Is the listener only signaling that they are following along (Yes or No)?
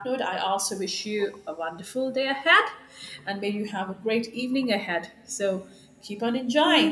No